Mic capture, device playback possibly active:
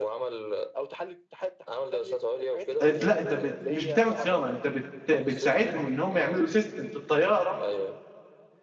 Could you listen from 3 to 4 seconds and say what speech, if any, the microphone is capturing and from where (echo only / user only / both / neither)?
both